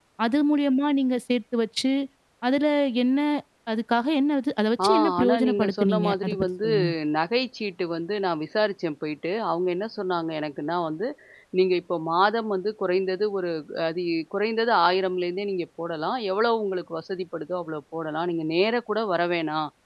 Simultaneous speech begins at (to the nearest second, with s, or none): 5 s